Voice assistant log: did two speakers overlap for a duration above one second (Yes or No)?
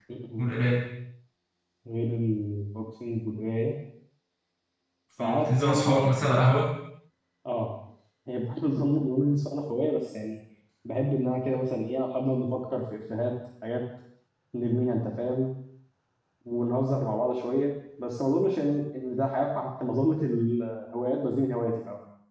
Yes